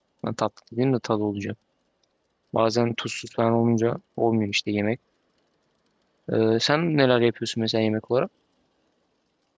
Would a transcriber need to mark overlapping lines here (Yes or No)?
No